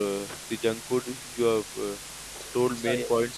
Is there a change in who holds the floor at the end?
No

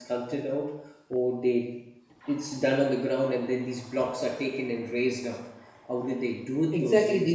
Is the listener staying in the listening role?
No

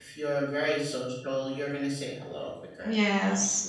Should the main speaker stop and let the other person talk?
Yes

